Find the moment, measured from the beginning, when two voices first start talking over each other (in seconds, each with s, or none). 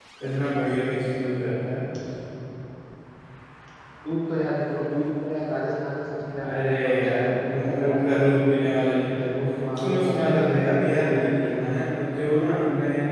6.4 s